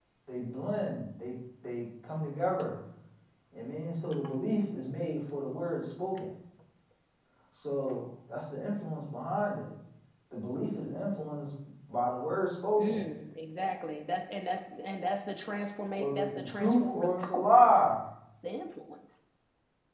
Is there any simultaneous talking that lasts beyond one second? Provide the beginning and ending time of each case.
16.0-17.8

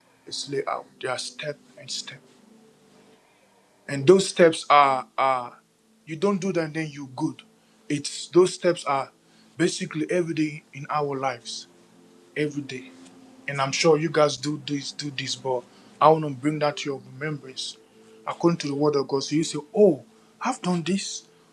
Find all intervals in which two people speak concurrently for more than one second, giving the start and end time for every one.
none

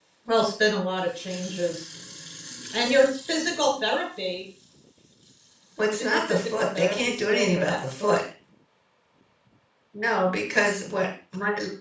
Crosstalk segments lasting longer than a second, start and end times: 5.9-8.2

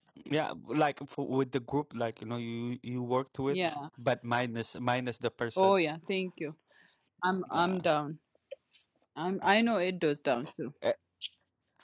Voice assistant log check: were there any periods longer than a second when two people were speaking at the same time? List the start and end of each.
none

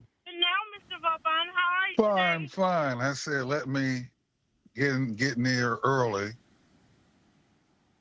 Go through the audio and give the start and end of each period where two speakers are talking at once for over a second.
none

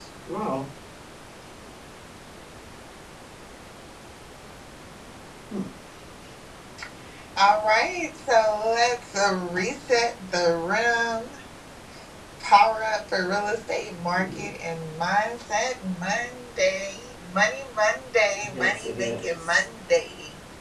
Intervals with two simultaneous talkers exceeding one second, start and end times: 18.4-19.6

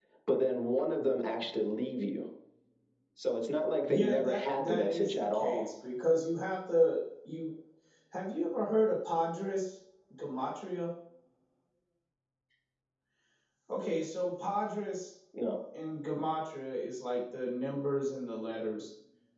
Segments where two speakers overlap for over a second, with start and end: 3.9-5.7

